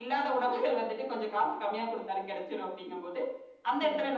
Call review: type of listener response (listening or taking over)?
listening